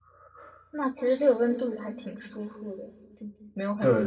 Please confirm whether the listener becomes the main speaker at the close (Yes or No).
Yes